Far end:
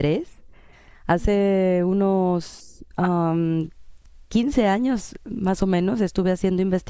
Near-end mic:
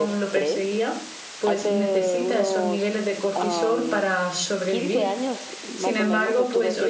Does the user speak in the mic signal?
Yes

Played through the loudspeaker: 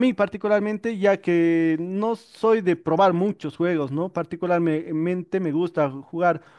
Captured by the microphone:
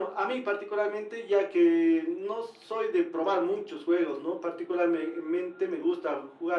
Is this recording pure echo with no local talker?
Yes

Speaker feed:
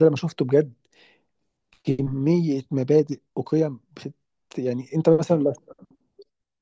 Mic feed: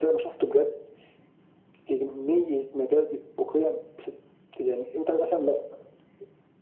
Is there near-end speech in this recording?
No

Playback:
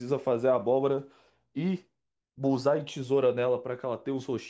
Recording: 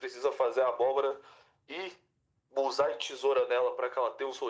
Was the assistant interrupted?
No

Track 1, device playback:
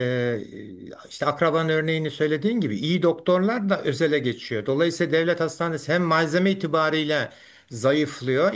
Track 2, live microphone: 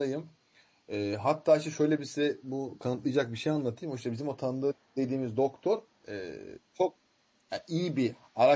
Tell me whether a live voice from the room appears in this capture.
Yes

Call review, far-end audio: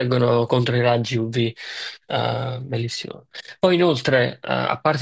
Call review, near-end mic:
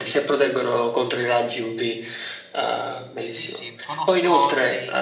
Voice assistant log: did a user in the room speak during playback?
Yes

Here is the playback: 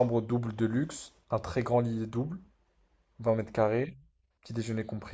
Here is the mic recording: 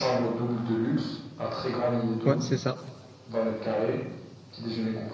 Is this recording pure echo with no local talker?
No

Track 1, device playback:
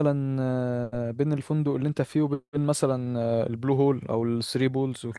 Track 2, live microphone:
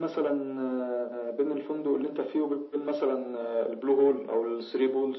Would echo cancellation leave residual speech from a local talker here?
No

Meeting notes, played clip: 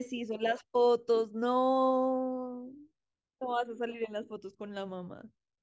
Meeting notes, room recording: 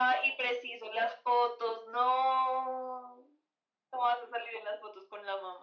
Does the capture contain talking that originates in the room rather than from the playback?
No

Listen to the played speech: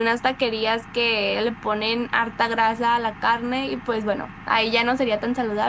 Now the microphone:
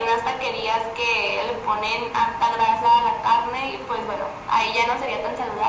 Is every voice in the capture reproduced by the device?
Yes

